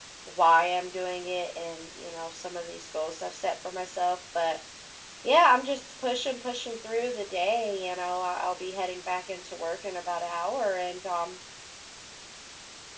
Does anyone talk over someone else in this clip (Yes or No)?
No